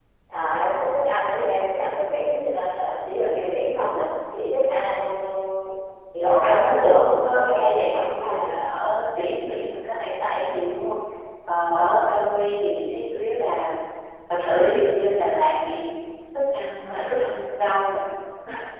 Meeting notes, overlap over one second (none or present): present